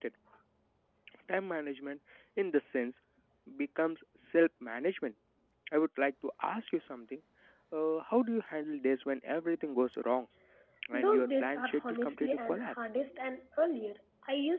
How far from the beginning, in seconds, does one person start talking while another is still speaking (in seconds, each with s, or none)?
10.9 s